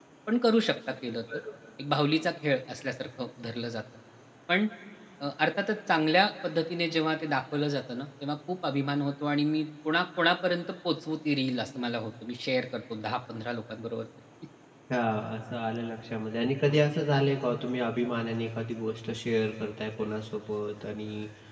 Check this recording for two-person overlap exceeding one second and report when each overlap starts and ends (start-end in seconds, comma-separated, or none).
none